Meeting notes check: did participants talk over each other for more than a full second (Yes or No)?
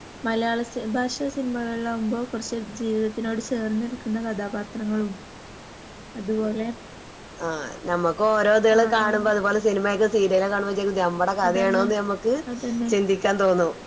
No